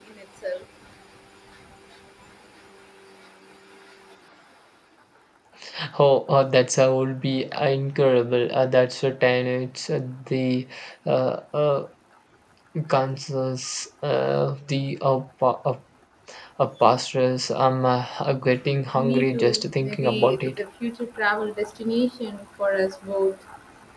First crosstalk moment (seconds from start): 18.9 s

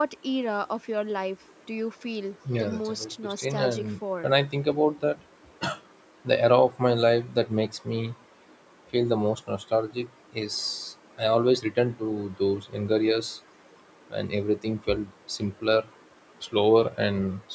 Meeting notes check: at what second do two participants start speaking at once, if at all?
2.5 s

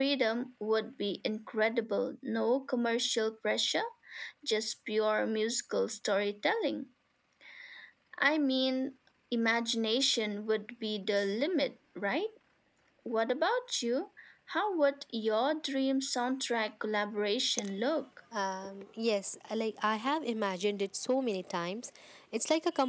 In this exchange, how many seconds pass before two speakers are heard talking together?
none

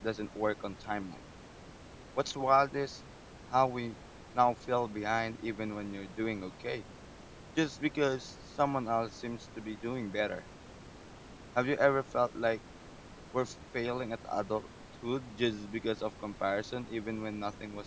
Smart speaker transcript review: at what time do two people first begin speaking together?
none

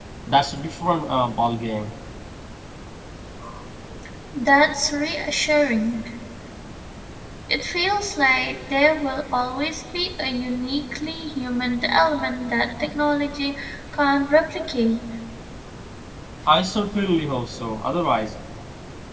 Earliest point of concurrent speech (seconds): none

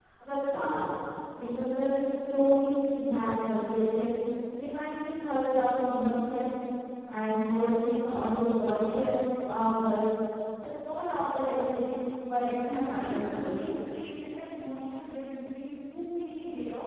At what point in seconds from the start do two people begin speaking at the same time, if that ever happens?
12.3 s

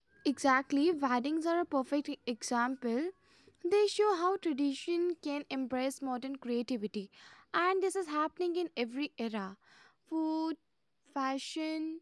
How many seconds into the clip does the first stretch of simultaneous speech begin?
none

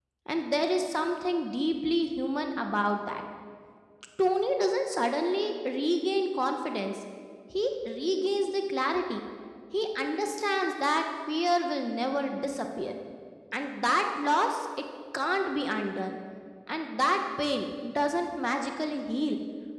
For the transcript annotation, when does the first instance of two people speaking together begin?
none

